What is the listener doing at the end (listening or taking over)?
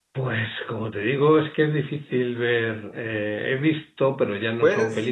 listening